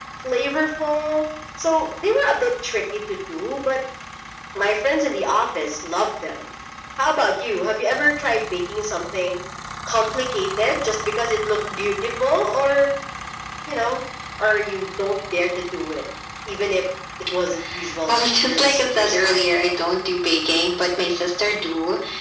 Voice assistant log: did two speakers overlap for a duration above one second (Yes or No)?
Yes